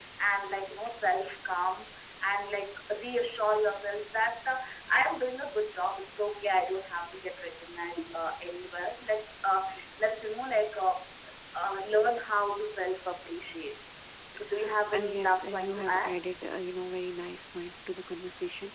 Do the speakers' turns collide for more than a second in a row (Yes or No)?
Yes